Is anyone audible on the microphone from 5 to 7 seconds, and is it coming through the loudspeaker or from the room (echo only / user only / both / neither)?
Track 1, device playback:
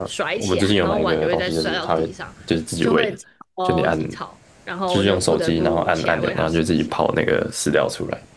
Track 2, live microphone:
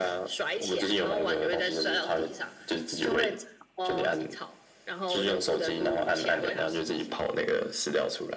echo only